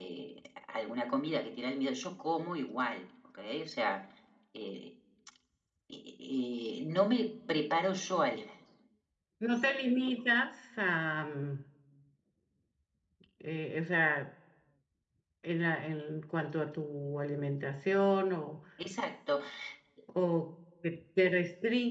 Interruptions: none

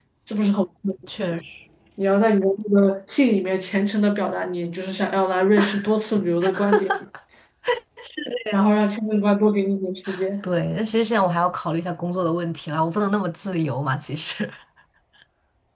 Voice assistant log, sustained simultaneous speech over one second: none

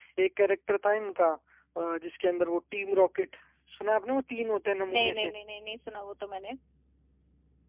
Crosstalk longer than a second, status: none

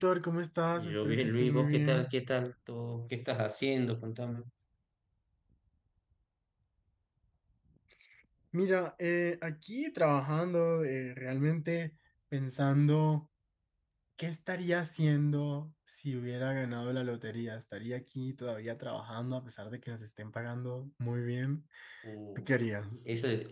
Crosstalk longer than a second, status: present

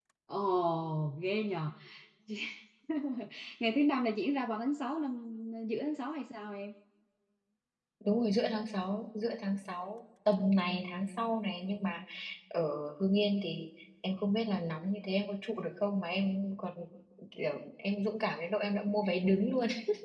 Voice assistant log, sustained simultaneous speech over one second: none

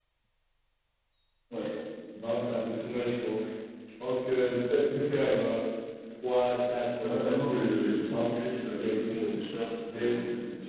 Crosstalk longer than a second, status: present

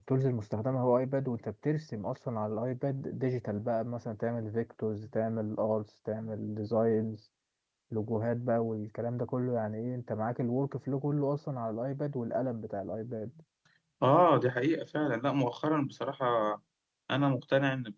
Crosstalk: none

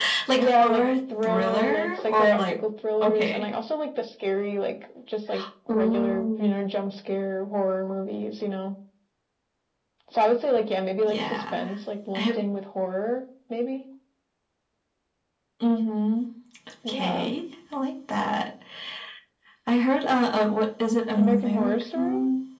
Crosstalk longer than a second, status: present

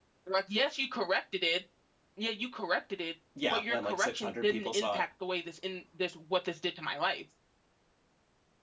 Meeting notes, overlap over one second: present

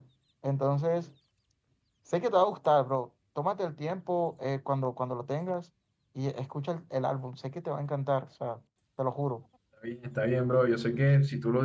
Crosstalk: none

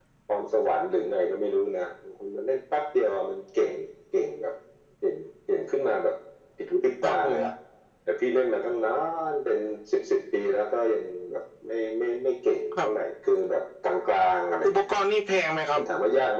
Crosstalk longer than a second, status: none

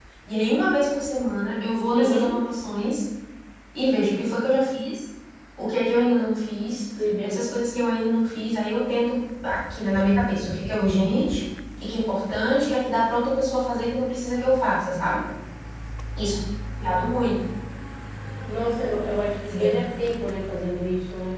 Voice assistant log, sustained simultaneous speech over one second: none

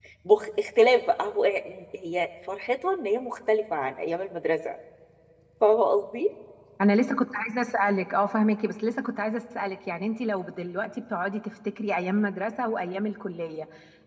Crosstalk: none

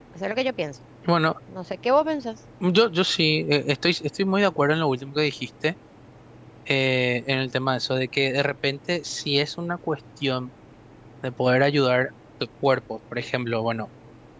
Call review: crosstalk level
none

